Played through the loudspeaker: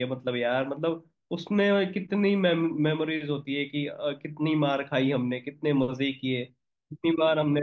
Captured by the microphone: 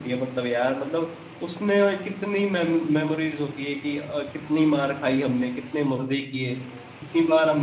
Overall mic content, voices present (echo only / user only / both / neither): echo only